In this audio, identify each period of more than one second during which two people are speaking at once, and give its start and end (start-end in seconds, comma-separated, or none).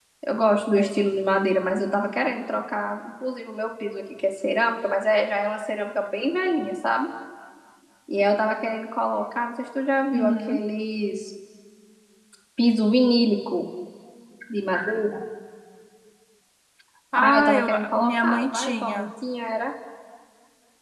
17.2-19.1